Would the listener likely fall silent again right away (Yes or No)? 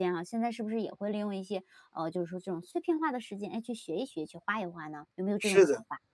No